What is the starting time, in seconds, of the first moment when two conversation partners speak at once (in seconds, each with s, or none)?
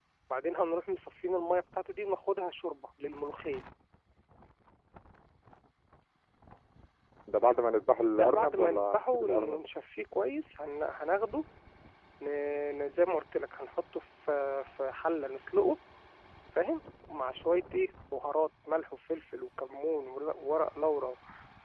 8.2 s